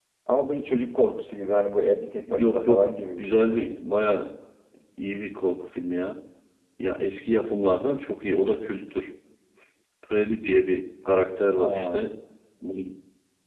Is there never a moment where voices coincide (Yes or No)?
No